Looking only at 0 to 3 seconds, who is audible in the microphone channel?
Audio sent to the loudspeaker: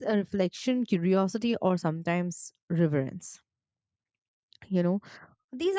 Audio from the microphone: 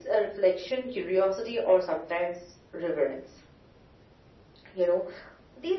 echo only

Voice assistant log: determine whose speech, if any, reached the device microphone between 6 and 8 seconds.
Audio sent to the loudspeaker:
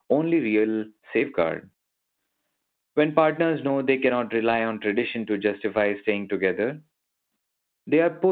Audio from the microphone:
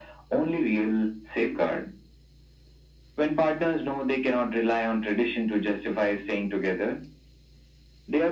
echo only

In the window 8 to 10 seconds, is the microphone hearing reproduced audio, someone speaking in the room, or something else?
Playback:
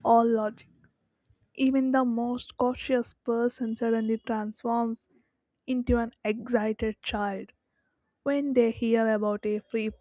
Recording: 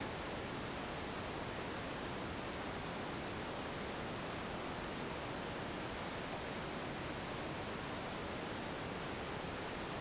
neither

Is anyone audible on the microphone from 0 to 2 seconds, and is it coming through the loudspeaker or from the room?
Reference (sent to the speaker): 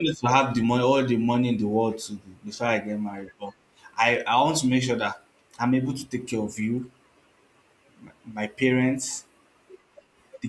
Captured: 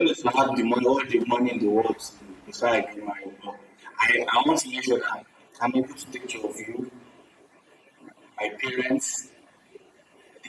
echo only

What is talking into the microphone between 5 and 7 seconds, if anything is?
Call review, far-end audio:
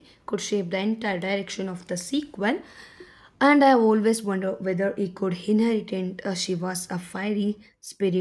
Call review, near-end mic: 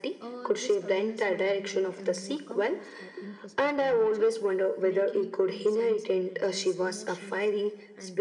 both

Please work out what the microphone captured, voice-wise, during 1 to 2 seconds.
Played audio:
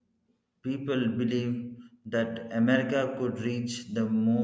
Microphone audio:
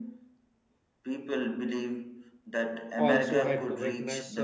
echo only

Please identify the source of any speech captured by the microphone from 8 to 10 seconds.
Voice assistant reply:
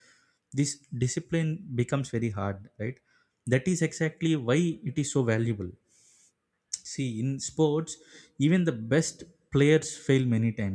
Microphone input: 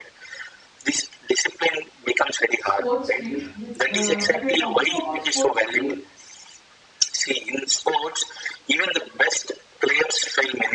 echo only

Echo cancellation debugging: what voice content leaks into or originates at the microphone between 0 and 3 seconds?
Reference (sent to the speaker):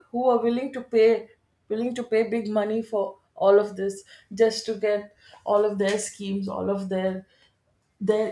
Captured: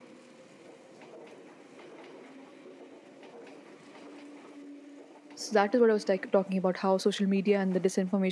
neither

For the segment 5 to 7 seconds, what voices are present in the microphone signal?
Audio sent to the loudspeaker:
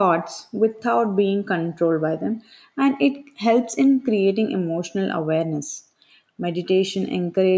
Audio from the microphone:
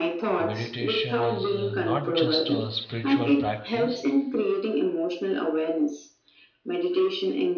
echo only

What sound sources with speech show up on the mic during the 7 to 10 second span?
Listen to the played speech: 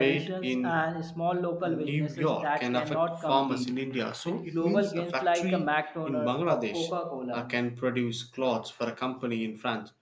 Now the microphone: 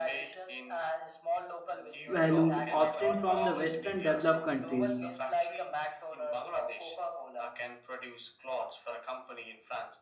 echo only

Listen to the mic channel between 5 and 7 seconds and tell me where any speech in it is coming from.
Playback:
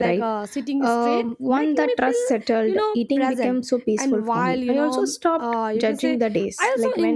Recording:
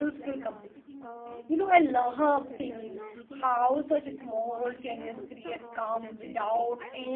both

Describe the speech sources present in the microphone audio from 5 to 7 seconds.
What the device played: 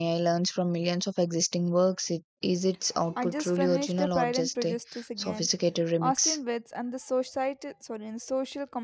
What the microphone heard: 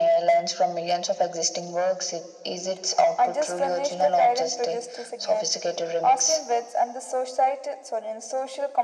echo only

